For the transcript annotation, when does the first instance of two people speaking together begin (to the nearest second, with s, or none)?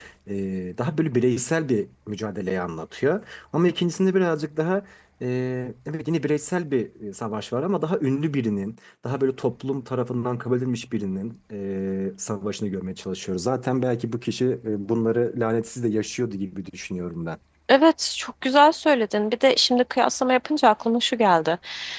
none